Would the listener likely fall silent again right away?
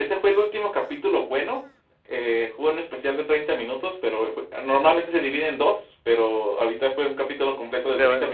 No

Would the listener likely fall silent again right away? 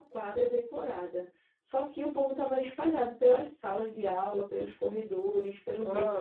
No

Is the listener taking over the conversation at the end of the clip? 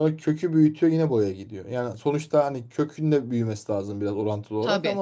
No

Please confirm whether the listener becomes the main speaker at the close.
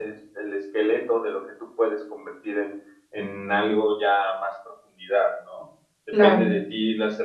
No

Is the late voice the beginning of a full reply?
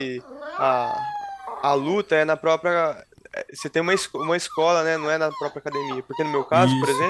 No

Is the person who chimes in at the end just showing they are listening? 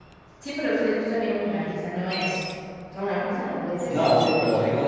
No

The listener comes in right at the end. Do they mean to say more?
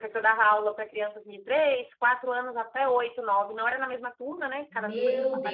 Yes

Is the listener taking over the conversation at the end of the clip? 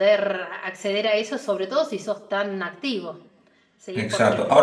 Yes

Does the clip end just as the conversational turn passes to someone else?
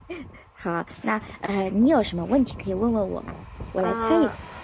Yes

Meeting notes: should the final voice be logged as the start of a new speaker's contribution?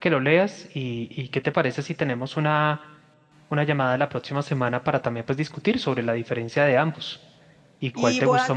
Yes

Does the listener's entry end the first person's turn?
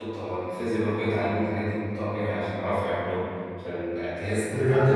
No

